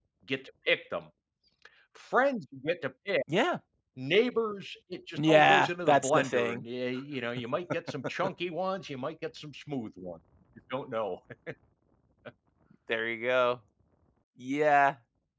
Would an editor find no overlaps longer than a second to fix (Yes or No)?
No